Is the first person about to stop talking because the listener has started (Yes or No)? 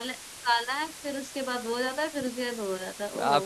Yes